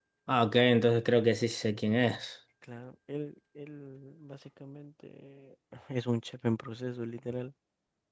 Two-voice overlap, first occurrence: none

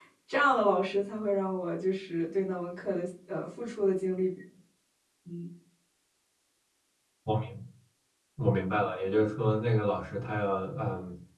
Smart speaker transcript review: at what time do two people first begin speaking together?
none

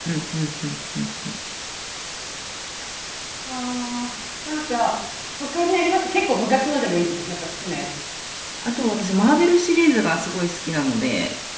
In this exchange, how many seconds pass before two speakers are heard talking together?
none

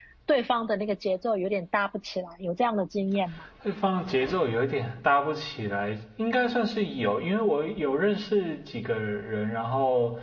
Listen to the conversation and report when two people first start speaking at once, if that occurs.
none

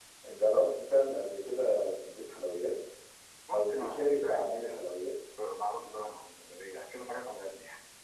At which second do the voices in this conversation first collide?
3.5 s

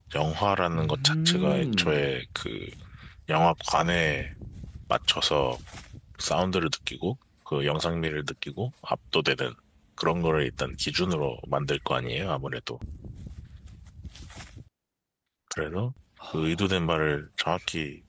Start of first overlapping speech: 0.8 s

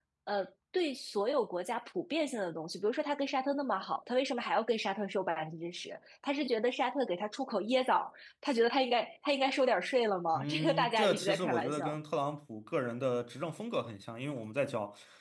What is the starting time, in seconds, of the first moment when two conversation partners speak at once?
10.3 s

